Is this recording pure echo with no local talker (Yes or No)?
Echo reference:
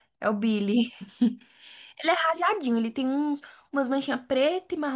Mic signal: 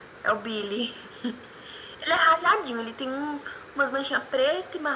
Yes